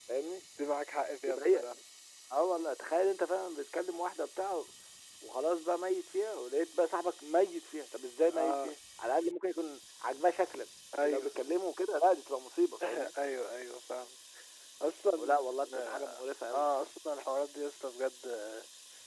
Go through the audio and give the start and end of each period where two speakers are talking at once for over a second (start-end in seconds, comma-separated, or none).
none